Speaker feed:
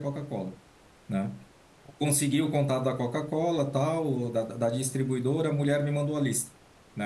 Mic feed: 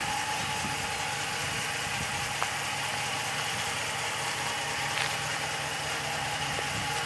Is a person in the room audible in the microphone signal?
No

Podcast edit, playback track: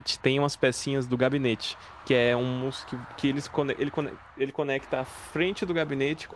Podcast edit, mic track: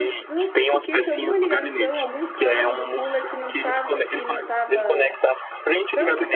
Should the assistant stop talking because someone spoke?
Yes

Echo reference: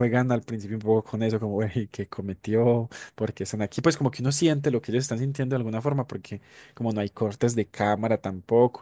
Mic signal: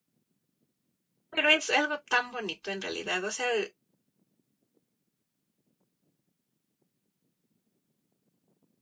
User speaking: Yes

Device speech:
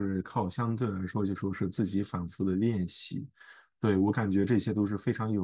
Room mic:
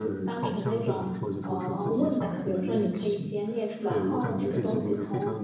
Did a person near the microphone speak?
Yes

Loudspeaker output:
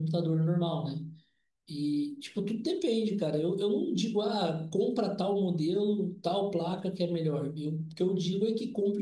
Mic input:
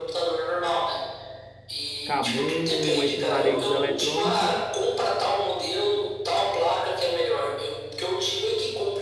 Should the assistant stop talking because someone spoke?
Yes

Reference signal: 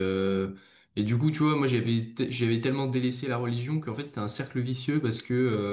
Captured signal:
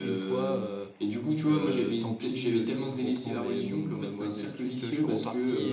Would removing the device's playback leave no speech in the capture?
No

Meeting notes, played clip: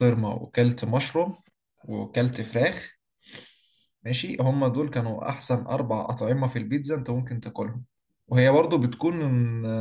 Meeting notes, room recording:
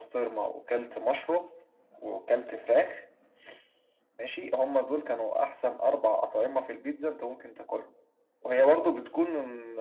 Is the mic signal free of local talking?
Yes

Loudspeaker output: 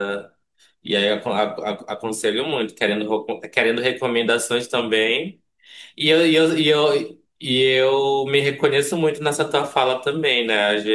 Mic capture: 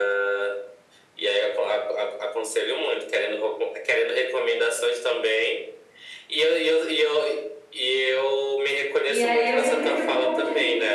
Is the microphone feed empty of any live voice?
No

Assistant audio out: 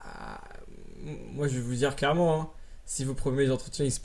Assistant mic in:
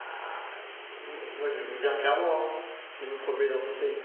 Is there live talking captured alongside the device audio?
No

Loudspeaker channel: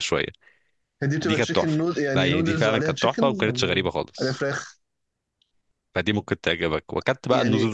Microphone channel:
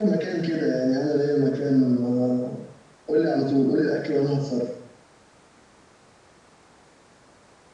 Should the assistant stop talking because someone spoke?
Yes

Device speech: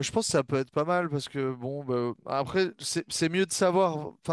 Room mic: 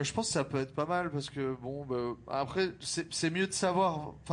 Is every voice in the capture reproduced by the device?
Yes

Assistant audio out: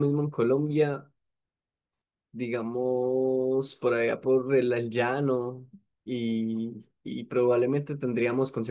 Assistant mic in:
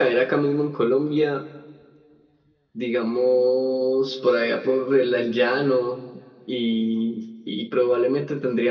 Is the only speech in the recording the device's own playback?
Yes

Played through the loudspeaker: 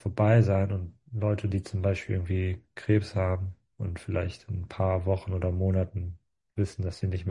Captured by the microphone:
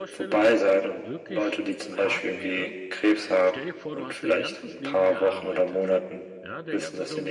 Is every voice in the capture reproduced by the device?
No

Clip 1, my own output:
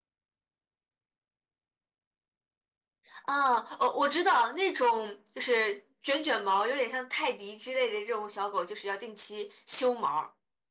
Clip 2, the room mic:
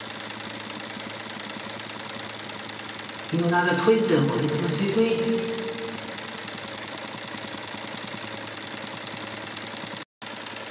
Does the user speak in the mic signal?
Yes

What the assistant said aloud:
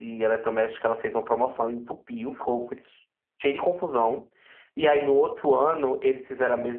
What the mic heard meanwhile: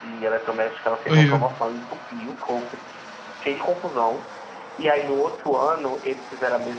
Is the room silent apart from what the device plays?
No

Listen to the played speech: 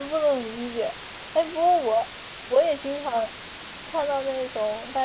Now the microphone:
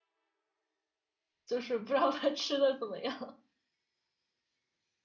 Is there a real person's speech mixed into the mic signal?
Yes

